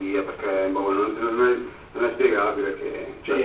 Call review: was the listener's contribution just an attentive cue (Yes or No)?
No